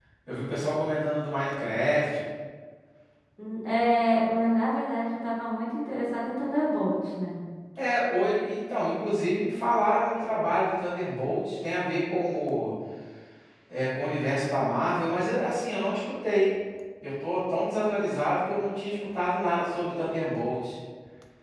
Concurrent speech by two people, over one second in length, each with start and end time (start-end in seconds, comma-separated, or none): none